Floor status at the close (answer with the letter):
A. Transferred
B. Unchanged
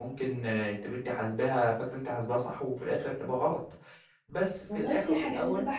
A